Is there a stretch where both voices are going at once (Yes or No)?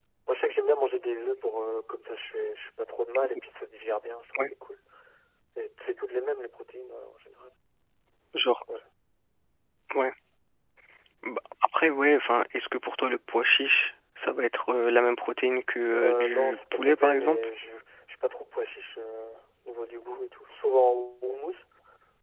Yes